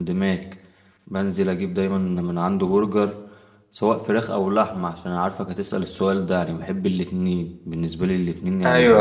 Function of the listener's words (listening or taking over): listening